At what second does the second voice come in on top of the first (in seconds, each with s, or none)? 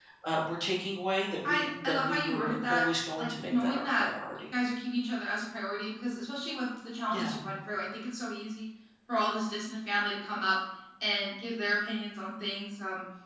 1.4 s